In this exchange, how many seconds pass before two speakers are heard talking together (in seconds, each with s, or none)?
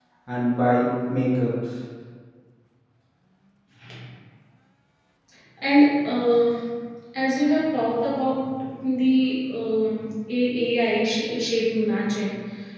none